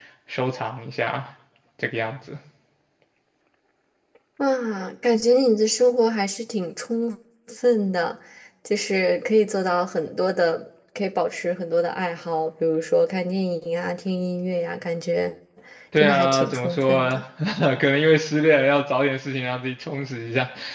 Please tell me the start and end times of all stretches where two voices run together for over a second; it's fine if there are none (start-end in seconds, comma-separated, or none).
16.0-17.2